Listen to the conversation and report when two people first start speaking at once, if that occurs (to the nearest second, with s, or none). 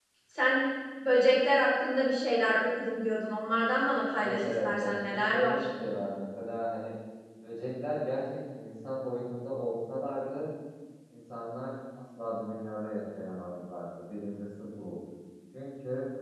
4 s